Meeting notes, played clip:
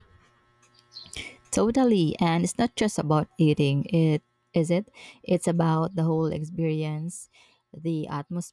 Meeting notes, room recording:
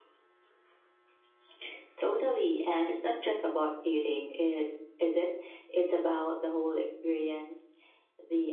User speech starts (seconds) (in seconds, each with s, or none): none